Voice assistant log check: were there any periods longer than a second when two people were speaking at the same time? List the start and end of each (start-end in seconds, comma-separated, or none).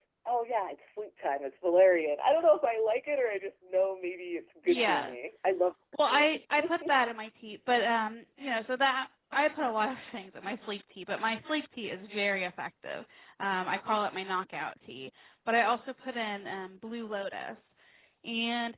none